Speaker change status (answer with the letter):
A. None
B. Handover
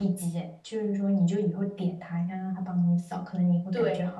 B